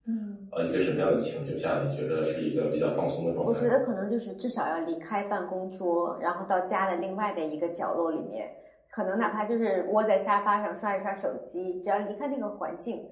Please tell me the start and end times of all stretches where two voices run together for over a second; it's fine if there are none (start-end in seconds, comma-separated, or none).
none